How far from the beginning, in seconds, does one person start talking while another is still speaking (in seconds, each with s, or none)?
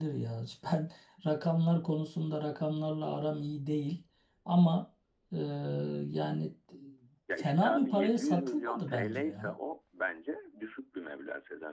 7.4 s